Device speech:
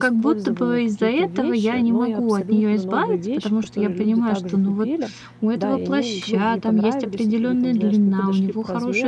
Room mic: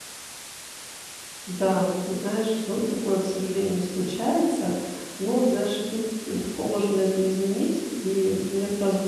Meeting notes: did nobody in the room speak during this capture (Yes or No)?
No